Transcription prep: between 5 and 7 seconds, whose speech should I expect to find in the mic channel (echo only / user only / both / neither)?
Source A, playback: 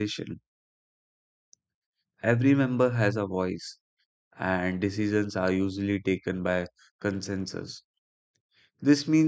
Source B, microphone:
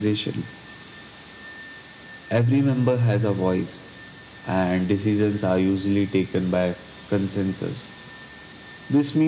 echo only